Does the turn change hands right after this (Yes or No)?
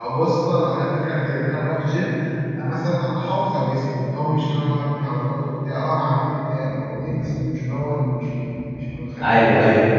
Yes